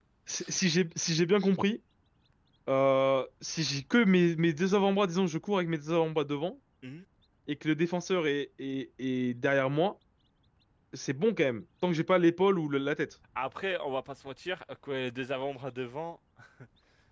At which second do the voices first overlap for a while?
none

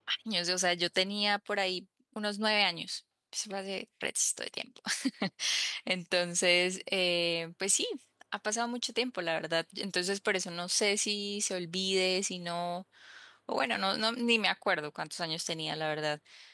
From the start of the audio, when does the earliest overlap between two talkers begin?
none

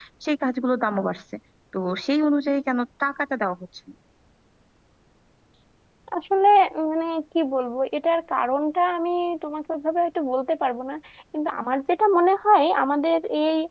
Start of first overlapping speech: none

